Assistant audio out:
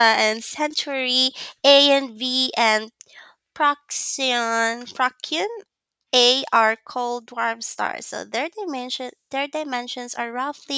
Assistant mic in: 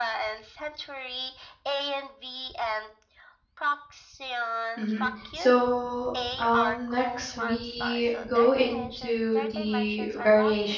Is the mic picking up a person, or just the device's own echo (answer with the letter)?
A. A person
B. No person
A